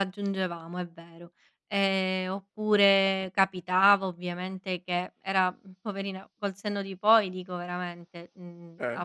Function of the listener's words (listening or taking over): listening